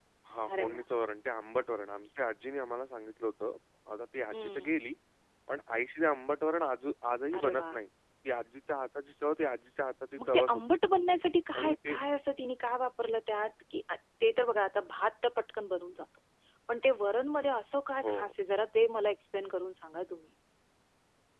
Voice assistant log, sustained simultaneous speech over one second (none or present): none